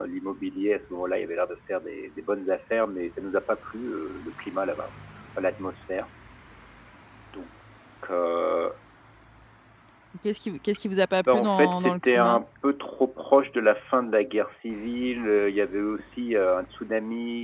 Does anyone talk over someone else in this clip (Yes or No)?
Yes